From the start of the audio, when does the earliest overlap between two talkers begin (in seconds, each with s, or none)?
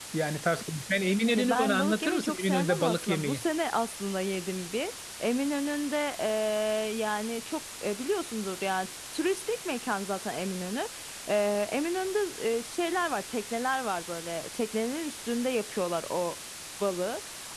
1.3 s